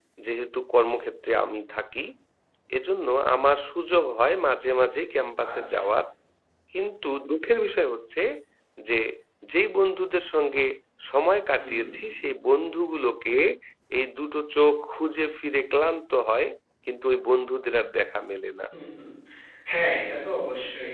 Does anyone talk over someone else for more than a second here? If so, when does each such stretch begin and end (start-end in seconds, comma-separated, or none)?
none